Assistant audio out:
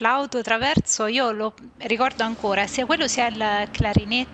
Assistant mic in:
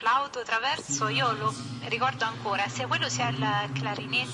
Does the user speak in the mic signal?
Yes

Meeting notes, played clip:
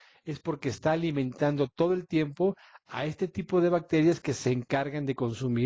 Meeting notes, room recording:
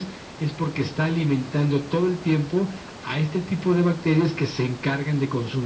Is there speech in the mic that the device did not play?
No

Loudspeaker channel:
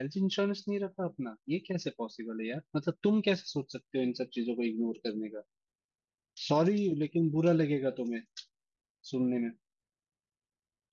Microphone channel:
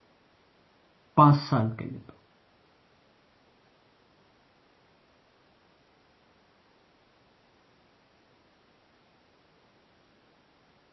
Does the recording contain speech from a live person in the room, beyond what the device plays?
Yes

